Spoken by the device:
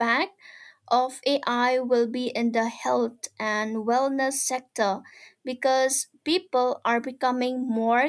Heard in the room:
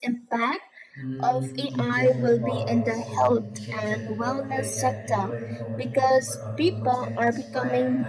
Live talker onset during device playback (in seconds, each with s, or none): 0.9 s